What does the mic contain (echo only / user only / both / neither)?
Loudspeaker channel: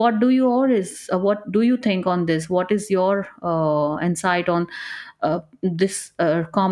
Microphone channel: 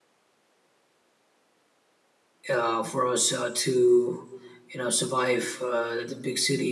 user only